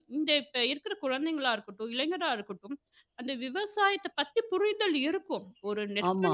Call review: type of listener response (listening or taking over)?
listening